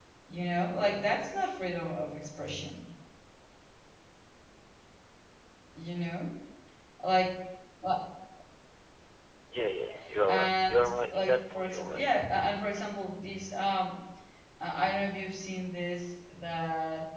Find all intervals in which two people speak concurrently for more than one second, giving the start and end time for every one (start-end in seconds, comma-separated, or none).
10.3-12.1